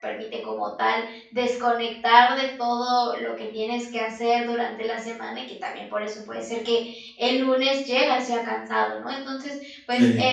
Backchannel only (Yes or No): Yes